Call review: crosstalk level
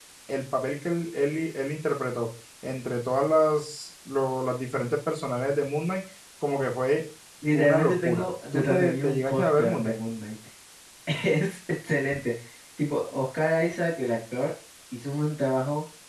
present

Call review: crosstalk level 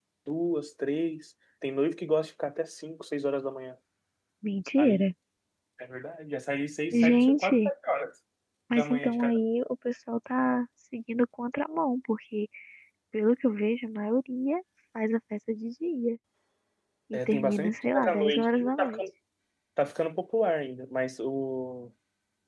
present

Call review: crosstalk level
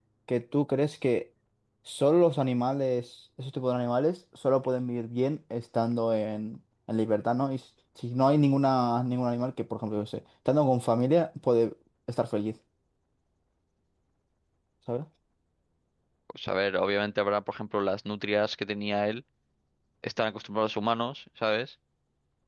none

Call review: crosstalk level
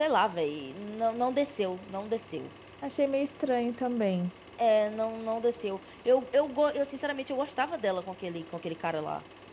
none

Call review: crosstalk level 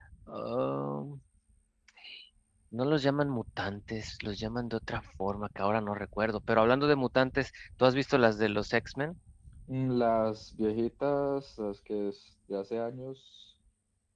none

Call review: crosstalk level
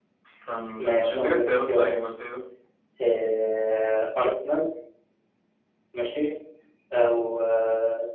present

